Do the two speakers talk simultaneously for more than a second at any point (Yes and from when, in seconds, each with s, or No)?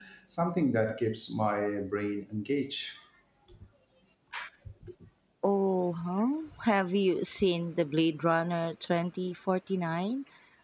No